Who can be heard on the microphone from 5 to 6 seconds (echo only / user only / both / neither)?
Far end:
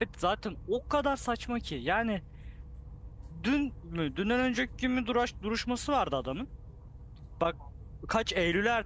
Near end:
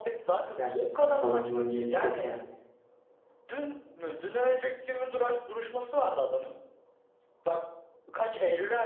echo only